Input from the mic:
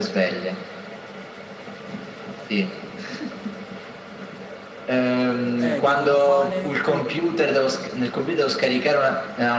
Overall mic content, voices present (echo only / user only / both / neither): both